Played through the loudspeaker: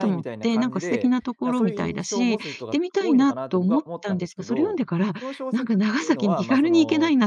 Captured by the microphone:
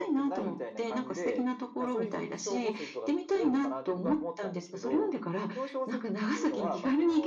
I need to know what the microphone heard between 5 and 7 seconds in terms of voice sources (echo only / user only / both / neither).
echo only